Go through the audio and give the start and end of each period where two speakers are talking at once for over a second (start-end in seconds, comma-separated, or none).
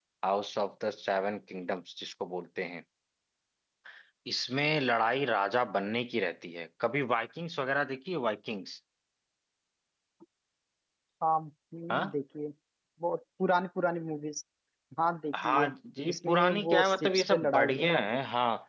16.1-17.8